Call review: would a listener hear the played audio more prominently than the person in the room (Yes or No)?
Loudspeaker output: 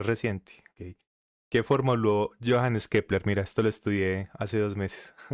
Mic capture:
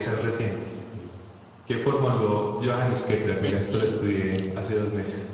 Yes